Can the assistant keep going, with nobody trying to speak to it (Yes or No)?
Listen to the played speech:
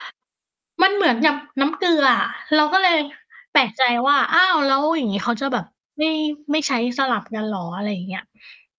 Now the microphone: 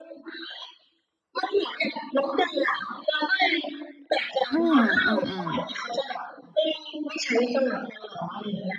No